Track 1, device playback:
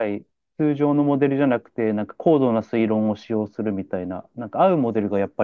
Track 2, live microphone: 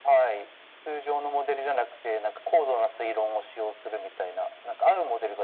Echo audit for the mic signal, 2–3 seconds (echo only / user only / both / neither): echo only